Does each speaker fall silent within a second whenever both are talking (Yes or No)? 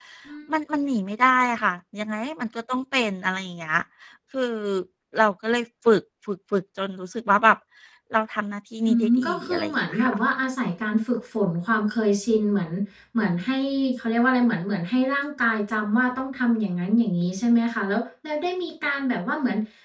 No